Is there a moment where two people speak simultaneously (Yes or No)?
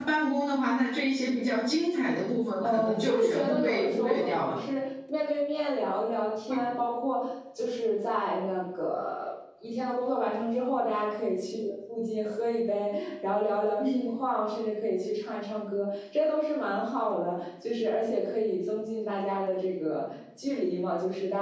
Yes